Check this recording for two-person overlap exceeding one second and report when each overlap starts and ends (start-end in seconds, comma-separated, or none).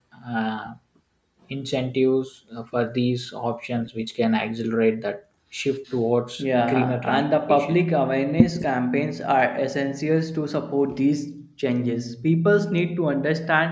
6.4-7.8